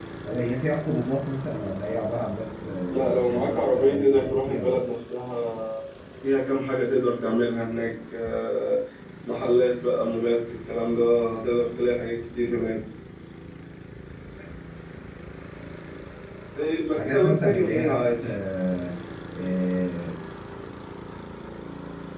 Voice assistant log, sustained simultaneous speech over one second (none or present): present